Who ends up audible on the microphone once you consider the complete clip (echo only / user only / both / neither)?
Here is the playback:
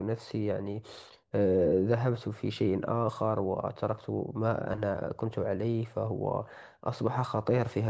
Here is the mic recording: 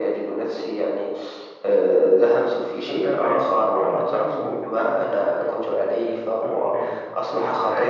both